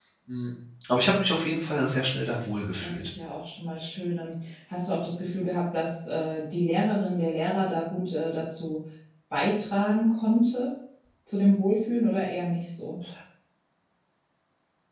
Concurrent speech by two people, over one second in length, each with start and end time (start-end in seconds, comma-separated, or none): none